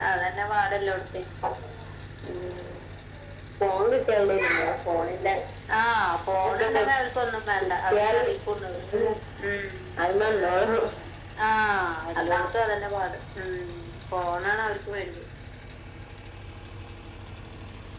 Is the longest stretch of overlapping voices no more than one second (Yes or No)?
Yes